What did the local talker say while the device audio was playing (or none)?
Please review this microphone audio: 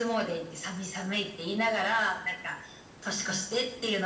うんうん。